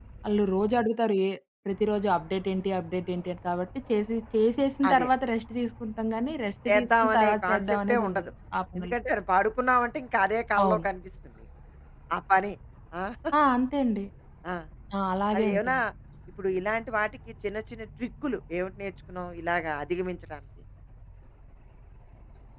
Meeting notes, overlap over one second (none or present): present